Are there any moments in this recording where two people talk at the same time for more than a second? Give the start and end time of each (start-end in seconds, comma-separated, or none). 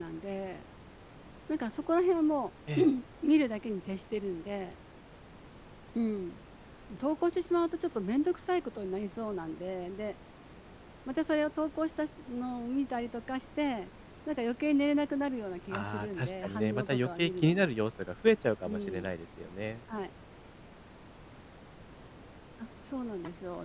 15.7-17.7